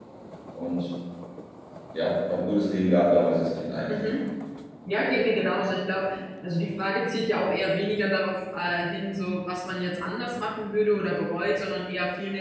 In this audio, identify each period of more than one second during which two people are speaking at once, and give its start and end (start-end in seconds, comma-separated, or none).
none